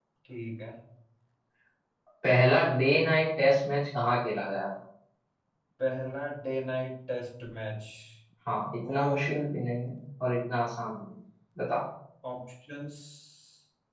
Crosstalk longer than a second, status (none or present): none